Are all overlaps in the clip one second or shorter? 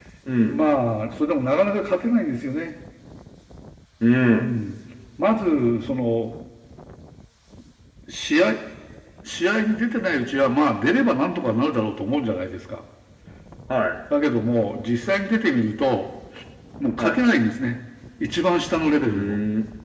Yes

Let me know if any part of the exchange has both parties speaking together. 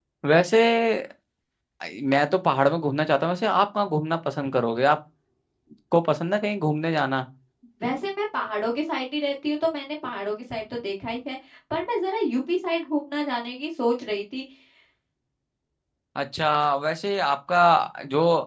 No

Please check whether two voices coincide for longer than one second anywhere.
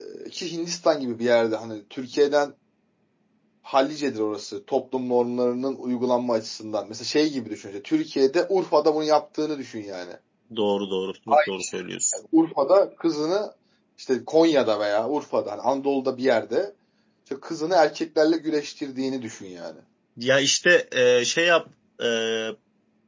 No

